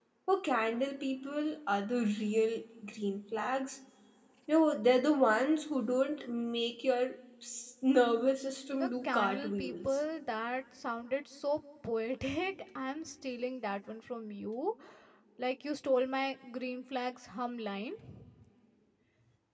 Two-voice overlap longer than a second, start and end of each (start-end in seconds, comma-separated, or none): 8.7-10.0